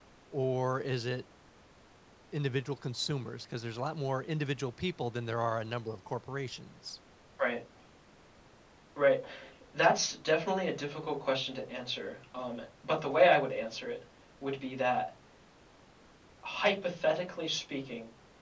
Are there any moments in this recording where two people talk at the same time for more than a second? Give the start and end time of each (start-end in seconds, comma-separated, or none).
none